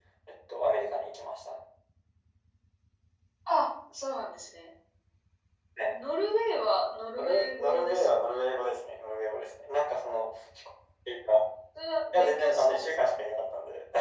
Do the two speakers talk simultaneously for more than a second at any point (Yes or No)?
Yes